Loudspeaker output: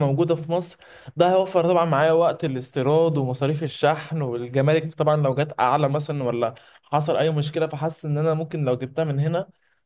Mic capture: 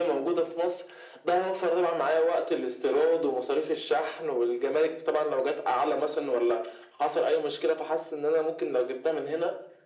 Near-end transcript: none

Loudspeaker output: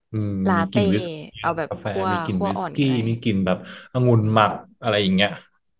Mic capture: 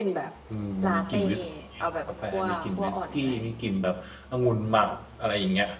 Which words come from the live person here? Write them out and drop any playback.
none

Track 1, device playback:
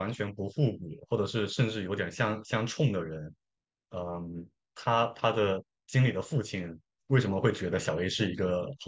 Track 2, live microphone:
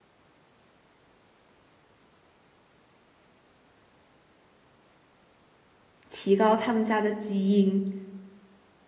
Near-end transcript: 提高他们家的基因。

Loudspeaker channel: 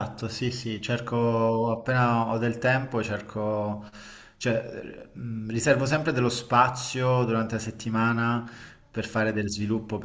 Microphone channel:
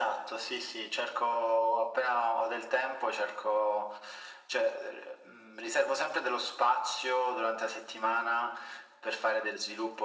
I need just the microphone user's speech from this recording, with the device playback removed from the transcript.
none

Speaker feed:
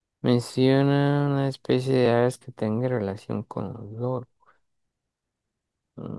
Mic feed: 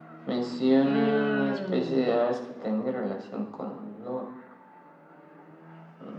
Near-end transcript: Mmm,

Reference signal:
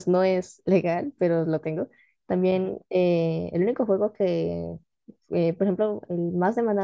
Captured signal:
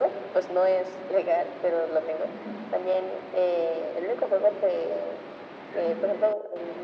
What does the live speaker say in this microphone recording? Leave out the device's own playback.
none

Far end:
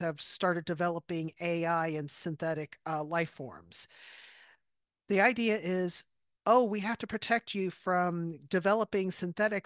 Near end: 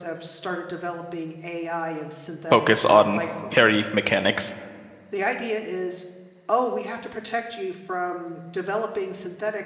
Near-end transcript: focus on parry mechanics.

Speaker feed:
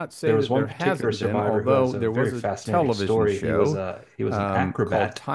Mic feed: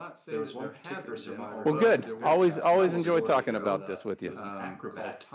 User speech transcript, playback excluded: well, good. Always always enjoy talking about this with you.

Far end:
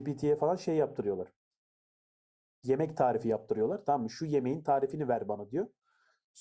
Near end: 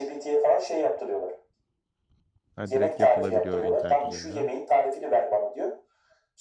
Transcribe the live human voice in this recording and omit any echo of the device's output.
Ha, direkt yapılabiliyor internet üzerine. ha?

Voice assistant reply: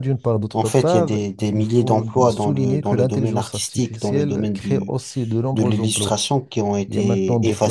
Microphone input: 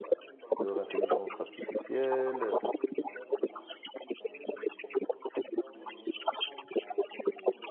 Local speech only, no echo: leur intelligence artificielle.

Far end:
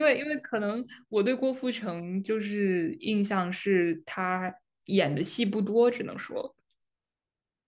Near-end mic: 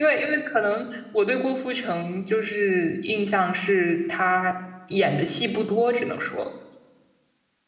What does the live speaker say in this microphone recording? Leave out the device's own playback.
none

